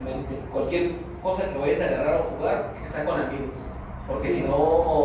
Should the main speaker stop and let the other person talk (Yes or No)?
No